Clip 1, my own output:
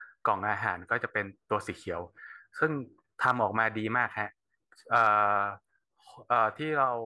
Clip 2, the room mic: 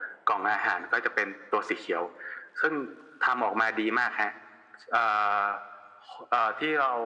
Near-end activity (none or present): none